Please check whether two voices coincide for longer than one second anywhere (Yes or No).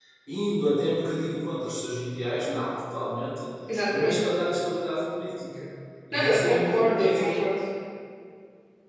Yes